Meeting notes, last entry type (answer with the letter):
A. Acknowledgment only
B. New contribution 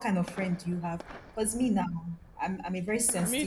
A